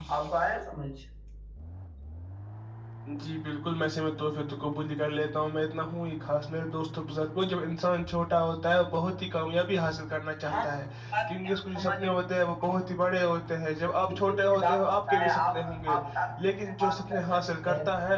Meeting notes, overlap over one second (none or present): present